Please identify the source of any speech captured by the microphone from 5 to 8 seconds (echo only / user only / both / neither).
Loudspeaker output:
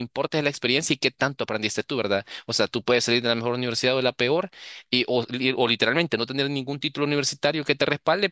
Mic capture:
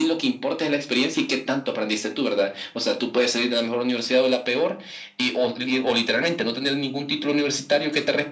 echo only